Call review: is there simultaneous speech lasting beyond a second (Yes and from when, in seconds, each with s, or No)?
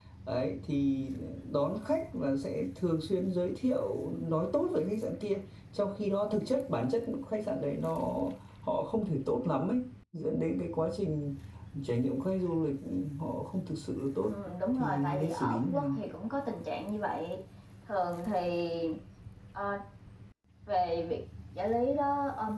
Yes, from 14.7 s